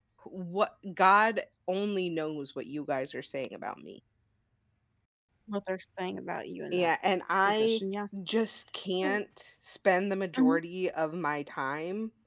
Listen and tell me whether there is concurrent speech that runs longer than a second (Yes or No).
No